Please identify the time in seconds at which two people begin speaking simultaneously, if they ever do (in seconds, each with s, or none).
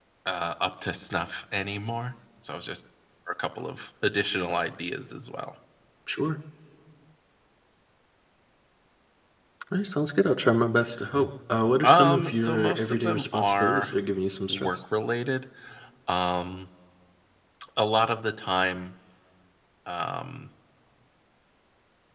11.8 s